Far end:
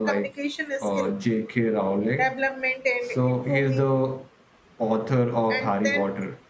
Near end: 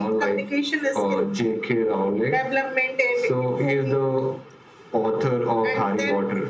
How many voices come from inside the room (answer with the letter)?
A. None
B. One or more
A